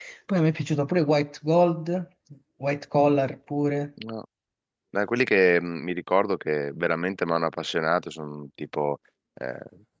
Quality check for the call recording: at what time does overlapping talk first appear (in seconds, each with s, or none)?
none